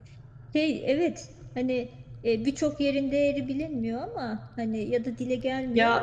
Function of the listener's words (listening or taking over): taking over